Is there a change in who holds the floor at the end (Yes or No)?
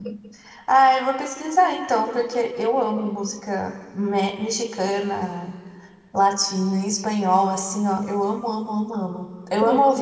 No